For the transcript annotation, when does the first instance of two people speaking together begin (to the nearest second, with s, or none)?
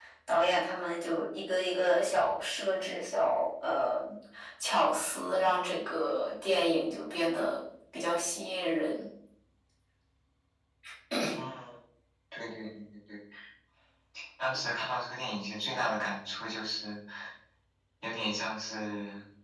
none